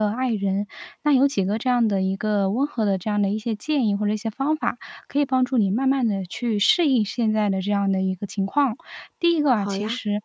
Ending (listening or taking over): listening